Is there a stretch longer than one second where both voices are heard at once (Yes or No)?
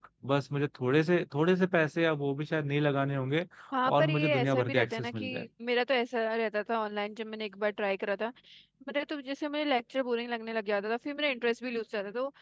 Yes